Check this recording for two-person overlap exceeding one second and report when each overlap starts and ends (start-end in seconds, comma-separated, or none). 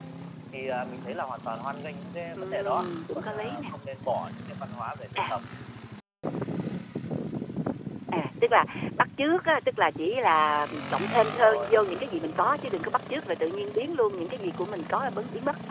2.4-3.7